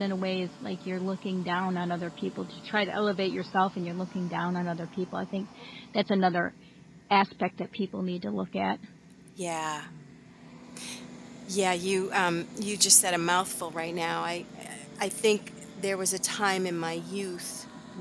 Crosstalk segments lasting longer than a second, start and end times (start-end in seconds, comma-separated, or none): none